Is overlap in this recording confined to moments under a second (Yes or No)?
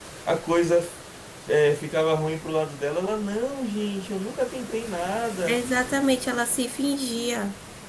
Yes